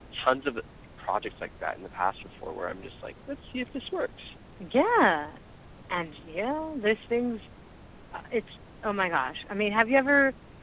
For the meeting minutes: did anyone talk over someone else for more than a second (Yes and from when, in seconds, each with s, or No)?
No